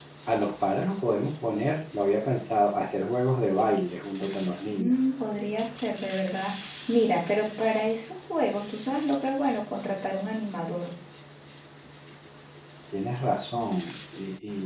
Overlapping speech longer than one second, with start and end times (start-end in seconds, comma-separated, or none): none